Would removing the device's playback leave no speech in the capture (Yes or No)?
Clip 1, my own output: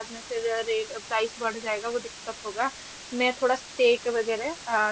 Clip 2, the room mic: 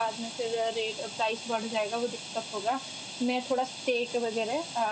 Yes